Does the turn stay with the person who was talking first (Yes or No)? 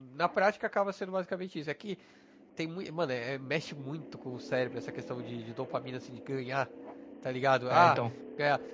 Yes